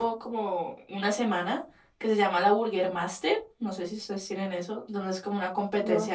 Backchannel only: Yes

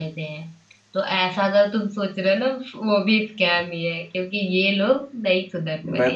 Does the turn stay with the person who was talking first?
No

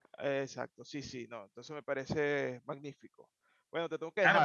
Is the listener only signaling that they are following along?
No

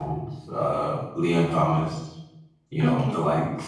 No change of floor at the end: Yes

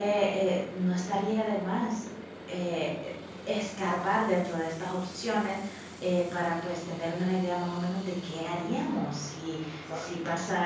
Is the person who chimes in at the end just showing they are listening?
Yes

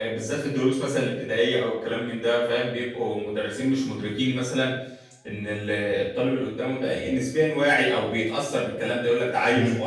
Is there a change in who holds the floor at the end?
No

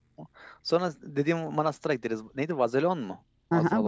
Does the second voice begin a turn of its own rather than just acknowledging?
Yes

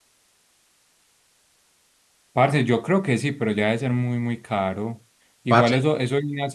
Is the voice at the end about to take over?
No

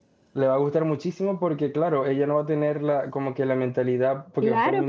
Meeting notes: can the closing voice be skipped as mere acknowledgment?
No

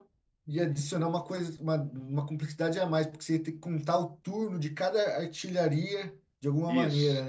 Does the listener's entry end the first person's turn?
Yes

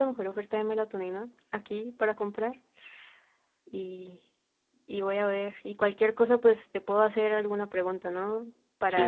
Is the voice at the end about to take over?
Yes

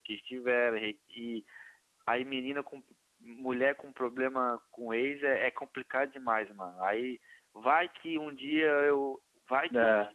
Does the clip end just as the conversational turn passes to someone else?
No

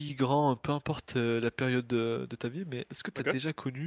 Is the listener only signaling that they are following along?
Yes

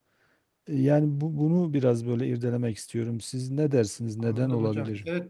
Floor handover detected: Yes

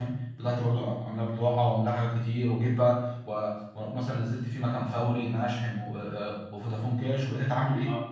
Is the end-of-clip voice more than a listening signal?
Yes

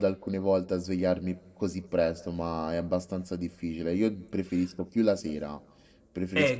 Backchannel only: No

